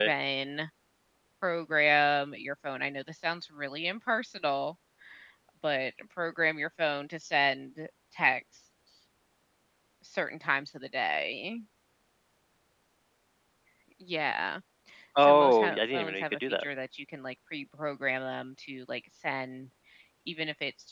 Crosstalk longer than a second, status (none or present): present